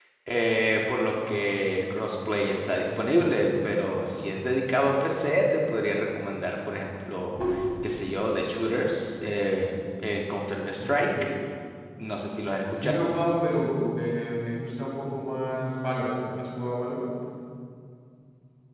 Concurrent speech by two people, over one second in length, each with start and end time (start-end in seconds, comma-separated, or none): none